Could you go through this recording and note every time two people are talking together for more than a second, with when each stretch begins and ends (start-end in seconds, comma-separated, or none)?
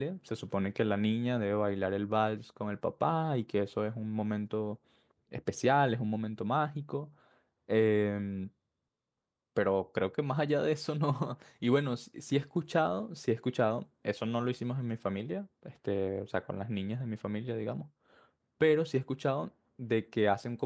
none